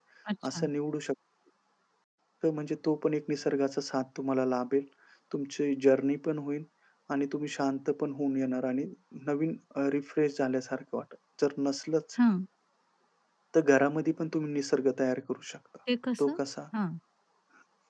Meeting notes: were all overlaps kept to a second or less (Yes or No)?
Yes